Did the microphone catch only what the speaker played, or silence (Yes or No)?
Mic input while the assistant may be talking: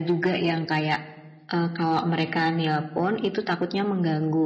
Yes